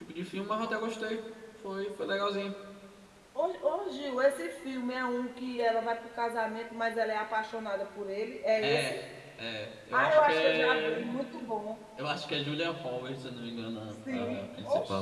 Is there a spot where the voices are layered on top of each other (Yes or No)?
Yes